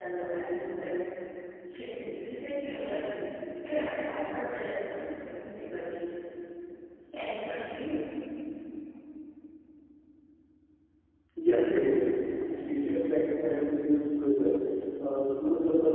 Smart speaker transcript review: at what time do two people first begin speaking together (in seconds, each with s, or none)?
none